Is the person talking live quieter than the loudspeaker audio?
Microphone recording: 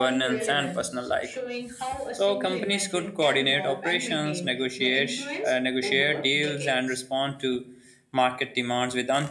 No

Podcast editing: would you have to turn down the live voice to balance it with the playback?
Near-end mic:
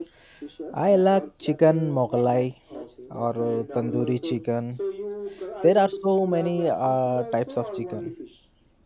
Yes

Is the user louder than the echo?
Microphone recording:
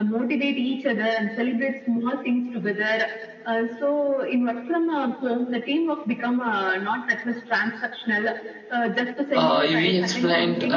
Yes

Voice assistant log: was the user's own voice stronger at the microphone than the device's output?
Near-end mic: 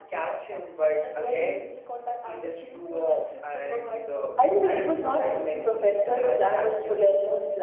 Yes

